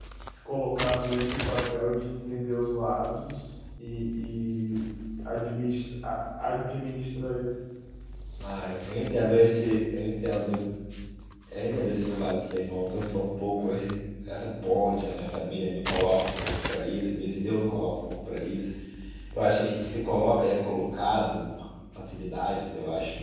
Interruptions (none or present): none